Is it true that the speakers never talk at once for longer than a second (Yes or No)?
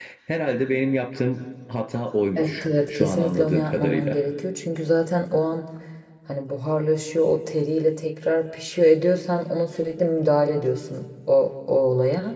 No